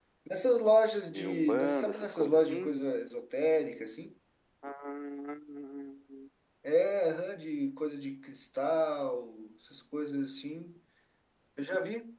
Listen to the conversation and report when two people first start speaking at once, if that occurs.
1.1 s

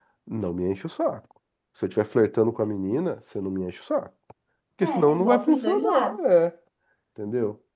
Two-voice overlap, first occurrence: 4.8 s

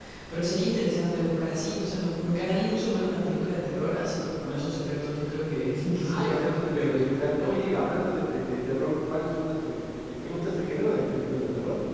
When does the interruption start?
6.0 s

